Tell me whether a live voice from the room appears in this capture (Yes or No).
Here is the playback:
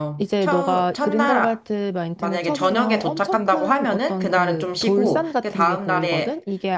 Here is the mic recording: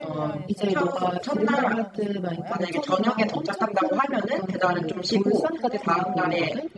Yes